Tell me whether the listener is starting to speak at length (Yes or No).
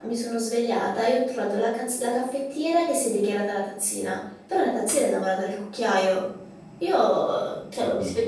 No